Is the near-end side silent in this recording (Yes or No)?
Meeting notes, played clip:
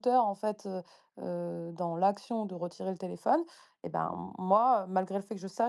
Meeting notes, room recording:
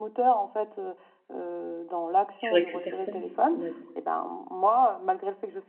No